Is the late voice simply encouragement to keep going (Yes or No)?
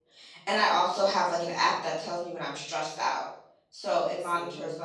Yes